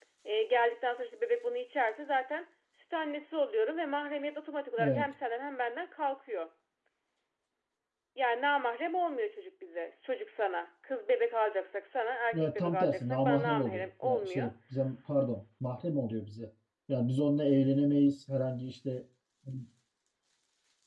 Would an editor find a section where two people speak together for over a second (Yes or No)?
Yes